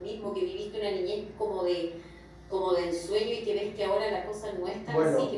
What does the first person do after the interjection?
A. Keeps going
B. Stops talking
A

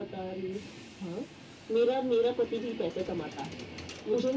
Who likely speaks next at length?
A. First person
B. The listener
B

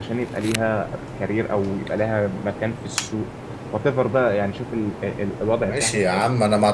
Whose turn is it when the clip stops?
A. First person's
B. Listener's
B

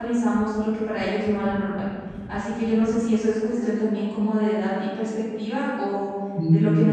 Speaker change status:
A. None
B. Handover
A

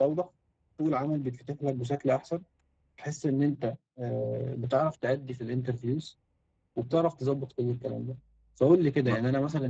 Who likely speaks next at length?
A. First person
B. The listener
A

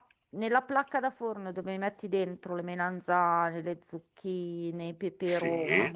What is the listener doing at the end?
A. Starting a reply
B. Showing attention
B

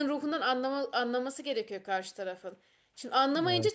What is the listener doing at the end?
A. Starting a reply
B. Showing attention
B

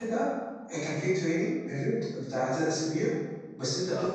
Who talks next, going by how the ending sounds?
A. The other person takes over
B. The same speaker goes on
B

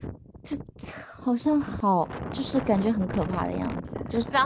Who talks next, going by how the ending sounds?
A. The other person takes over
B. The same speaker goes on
A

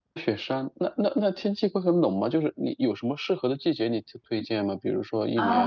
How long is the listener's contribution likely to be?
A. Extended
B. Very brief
A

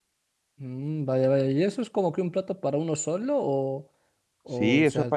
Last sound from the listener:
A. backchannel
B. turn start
B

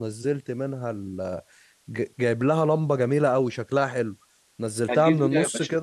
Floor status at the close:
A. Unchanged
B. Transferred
B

